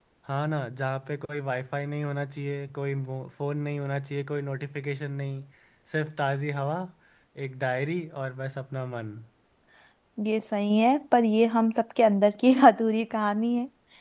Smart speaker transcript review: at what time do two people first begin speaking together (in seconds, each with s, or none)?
none